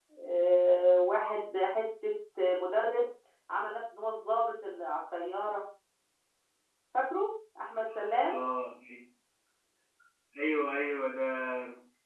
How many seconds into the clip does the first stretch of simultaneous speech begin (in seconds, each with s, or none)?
none